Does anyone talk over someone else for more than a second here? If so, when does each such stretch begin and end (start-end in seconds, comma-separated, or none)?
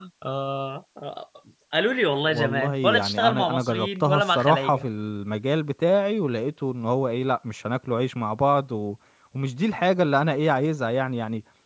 2.2-4.9